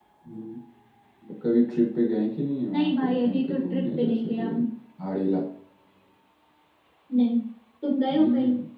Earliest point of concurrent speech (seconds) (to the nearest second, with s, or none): 3 s